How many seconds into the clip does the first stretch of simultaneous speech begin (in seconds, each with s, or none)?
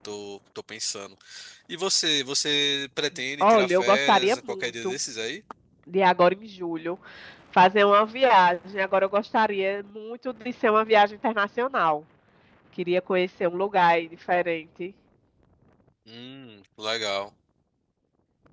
3.4 s